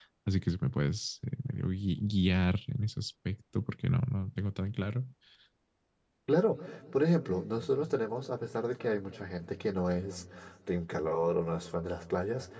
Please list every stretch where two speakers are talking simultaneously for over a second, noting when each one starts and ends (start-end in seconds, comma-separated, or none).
none